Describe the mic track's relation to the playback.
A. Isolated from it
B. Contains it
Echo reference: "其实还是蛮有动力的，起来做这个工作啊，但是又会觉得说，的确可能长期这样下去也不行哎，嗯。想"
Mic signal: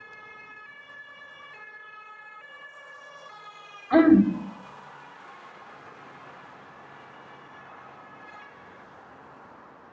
A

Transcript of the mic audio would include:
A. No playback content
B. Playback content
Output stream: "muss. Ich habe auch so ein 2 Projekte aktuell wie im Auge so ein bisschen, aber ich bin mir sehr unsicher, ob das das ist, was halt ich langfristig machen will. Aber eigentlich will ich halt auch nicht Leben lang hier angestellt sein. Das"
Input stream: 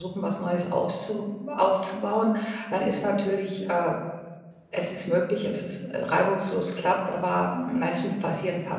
A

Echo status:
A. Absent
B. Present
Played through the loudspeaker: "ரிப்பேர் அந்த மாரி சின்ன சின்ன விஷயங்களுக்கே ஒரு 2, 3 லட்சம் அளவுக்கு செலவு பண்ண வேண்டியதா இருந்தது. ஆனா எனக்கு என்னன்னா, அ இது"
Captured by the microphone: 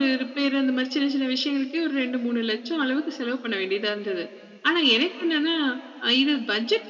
B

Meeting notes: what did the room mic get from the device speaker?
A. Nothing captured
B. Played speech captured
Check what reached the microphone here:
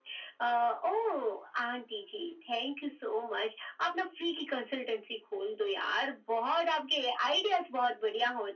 B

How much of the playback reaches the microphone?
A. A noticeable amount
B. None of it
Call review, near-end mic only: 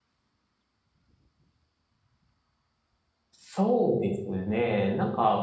B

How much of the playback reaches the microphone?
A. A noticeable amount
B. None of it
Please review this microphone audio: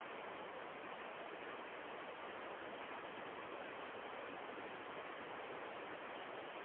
B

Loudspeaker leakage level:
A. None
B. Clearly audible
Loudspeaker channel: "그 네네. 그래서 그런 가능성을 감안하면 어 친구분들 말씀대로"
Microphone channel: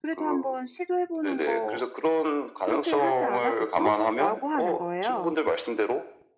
B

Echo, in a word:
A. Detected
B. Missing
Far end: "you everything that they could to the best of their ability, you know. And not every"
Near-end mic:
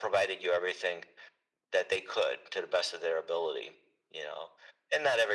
A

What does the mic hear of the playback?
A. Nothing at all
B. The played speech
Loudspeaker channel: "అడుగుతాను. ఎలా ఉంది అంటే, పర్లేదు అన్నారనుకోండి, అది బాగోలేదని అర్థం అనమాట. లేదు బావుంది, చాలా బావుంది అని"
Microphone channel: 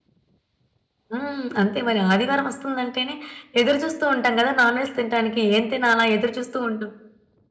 A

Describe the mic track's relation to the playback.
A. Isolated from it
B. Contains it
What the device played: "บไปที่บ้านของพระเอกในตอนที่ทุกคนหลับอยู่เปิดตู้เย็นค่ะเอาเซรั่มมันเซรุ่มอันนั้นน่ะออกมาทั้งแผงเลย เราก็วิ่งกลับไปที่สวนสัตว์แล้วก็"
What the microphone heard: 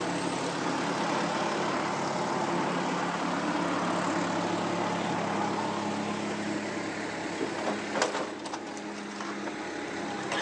A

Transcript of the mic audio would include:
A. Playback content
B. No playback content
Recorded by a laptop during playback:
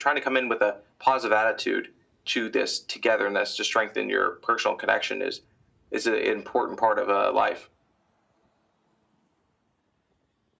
A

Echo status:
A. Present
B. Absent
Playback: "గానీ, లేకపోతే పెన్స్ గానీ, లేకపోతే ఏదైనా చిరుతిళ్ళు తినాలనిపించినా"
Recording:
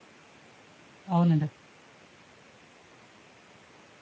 B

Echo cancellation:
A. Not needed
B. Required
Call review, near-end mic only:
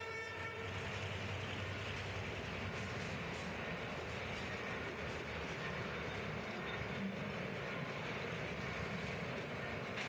A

